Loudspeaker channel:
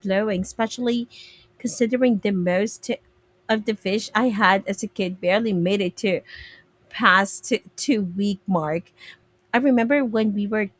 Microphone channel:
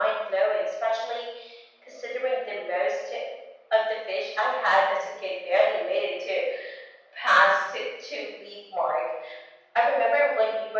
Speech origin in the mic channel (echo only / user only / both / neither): echo only